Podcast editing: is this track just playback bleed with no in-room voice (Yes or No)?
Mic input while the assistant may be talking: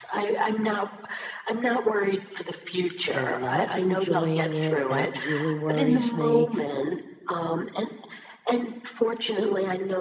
No